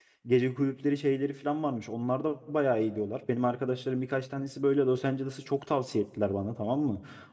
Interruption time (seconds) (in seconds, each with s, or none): none